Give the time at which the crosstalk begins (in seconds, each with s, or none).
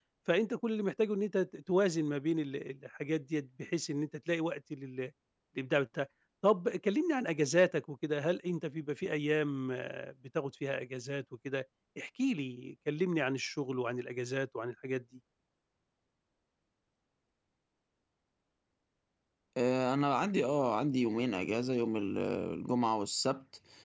none